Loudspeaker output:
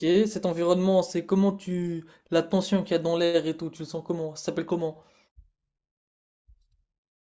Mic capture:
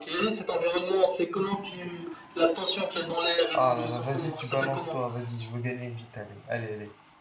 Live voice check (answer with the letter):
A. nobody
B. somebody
B